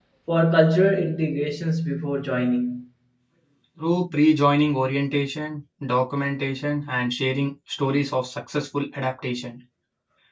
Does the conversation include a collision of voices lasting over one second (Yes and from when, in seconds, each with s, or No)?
No